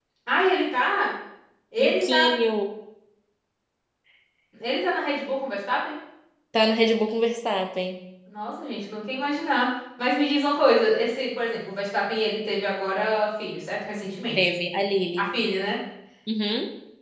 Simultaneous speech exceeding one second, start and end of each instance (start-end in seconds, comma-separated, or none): none